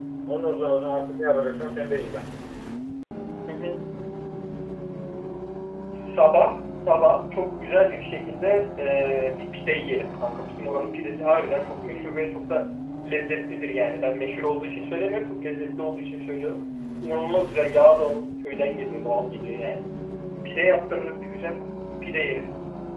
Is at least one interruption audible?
No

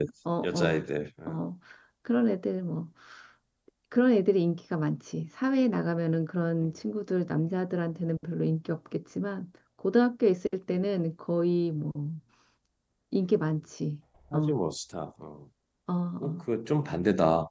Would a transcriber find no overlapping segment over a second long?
Yes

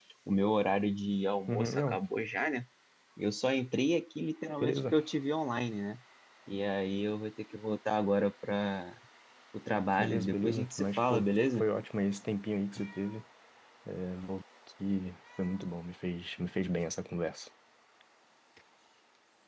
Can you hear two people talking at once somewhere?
Yes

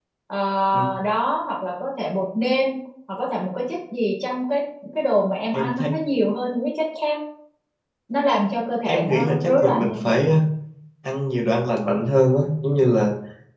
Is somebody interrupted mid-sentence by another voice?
Yes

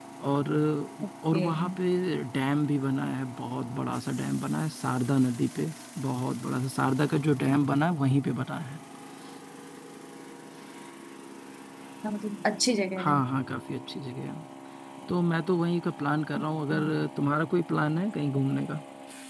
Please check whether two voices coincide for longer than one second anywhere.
No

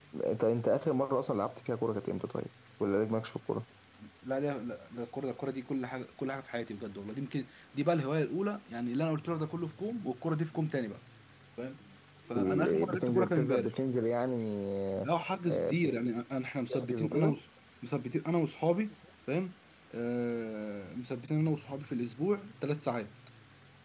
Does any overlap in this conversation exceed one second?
Yes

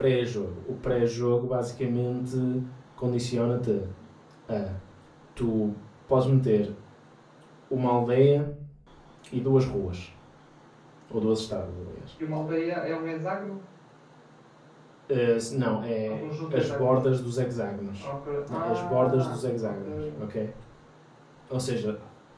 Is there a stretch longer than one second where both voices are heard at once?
Yes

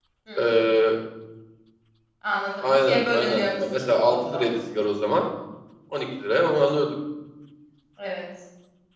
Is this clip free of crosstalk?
No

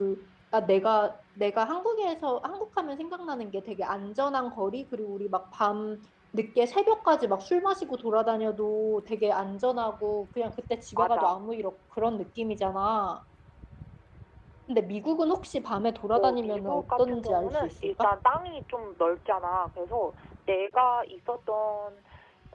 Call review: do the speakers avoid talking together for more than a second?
No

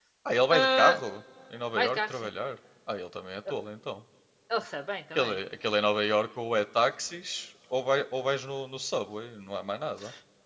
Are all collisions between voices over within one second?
Yes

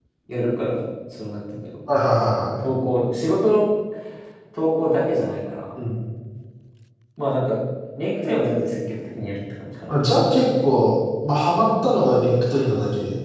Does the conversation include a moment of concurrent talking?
No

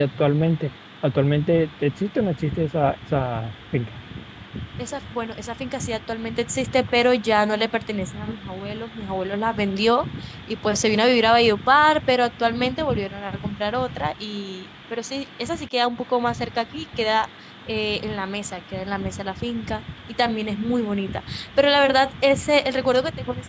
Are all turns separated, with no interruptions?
Yes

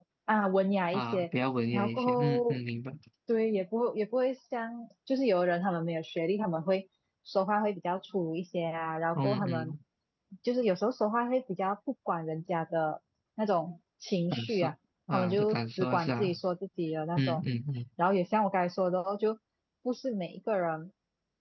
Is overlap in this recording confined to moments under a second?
No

